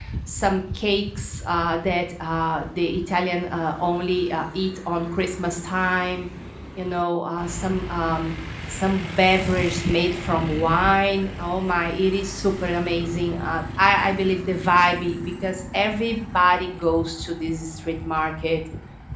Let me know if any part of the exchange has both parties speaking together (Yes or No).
No